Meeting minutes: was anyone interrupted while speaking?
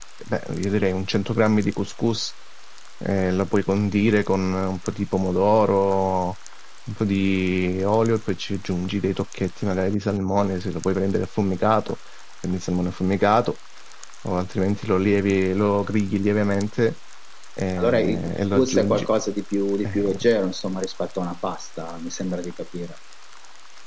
Yes, from 17.8 s

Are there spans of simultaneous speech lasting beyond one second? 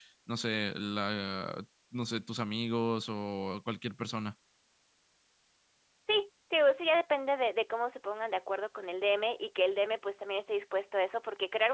No

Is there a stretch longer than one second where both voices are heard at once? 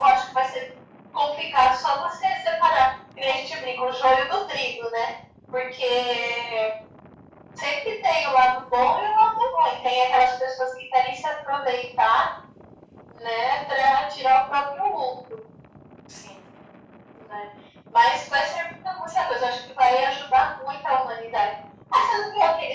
No

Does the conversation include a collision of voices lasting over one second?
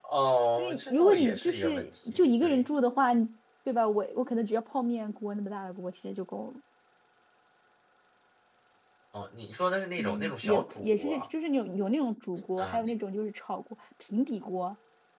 Yes, from 0.6 s

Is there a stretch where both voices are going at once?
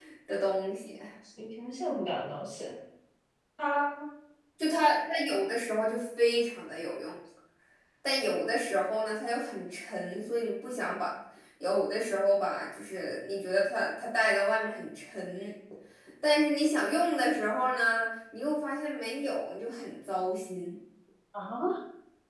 No

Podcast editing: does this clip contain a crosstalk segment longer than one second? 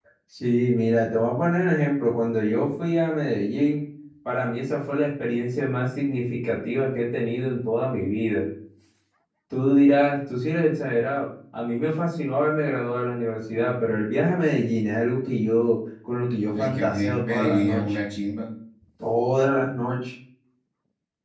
Yes, from 16.4 s

